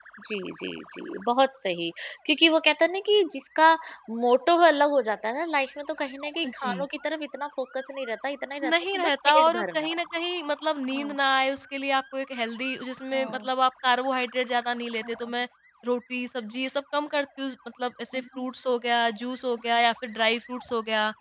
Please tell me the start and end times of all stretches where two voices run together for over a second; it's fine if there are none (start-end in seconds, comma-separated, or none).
8.6-10.0